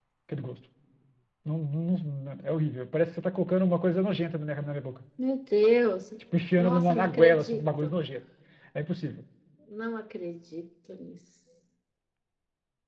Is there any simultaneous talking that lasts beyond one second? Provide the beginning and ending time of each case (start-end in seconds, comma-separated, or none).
6.6-8.0